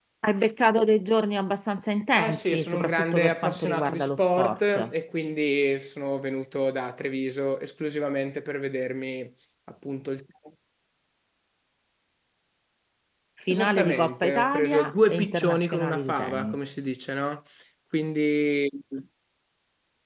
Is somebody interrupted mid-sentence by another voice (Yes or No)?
Yes